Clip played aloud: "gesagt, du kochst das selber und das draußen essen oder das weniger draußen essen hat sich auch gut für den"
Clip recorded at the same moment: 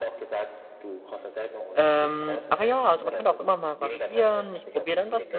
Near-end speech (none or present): present